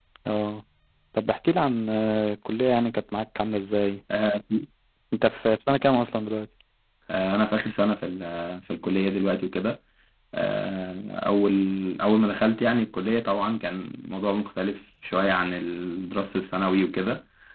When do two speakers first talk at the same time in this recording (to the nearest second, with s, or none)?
none